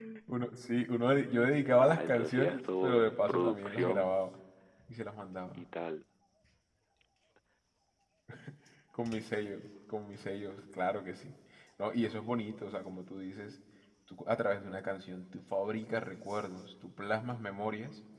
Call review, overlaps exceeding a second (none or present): present